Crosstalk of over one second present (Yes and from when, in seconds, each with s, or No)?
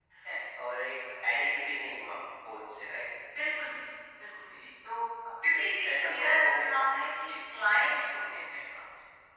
Yes, from 5.5 s